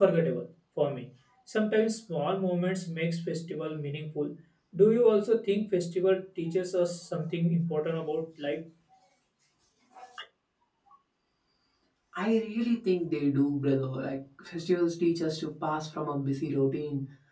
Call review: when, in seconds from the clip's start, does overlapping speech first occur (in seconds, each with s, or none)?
none